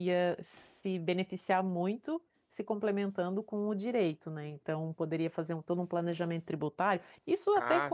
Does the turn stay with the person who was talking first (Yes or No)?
Yes